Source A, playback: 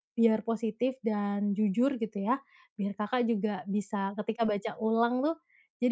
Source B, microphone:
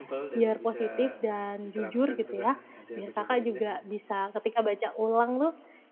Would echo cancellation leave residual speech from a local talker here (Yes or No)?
Yes